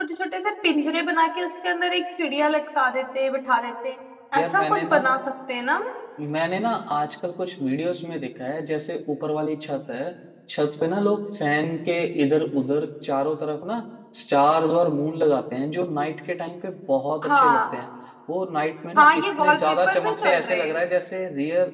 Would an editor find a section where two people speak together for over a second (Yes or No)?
Yes